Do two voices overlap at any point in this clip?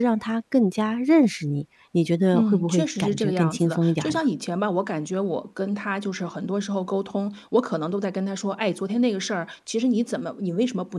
Yes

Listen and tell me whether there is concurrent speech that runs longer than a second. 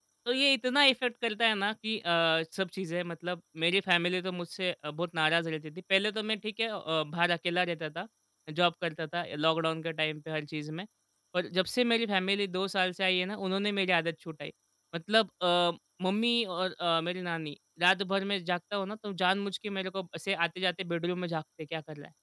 No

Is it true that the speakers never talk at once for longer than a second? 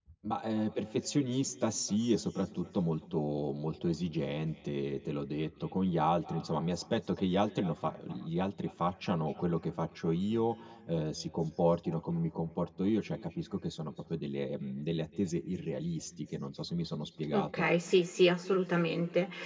Yes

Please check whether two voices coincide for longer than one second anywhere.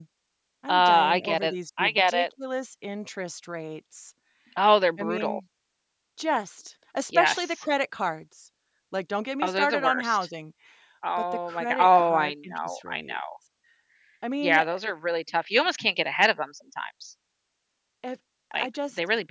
Yes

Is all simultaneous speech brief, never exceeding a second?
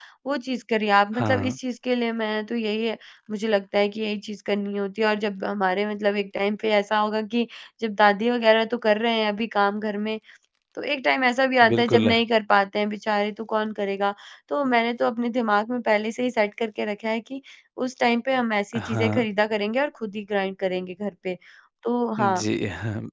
Yes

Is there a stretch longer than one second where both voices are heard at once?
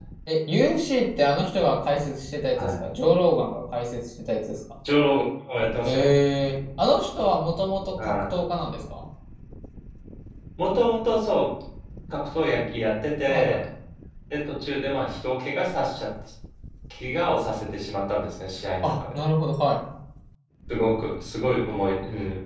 No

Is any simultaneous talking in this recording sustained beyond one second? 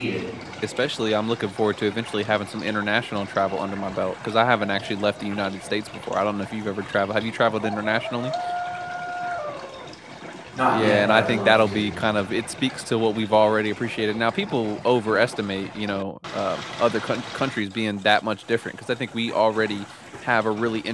Yes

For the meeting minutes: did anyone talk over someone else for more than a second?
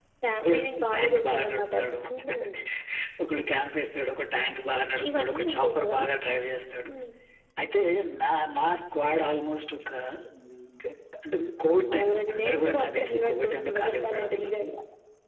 Yes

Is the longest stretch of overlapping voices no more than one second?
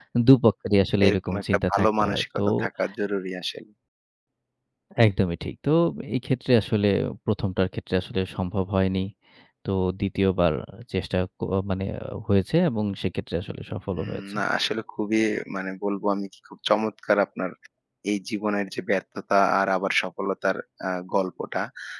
No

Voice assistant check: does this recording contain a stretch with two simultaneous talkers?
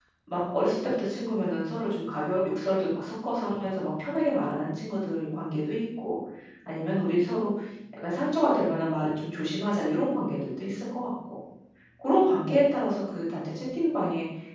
No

